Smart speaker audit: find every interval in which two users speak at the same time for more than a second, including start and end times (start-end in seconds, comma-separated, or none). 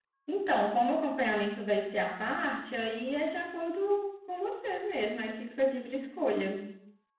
none